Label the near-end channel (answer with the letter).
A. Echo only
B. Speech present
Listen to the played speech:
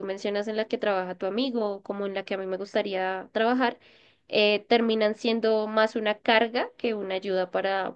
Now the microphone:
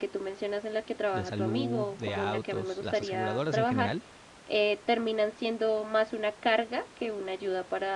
B